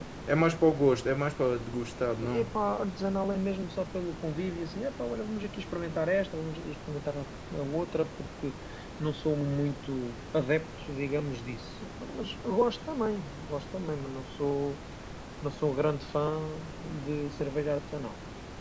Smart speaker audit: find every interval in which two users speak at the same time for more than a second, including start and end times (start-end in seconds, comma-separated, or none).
none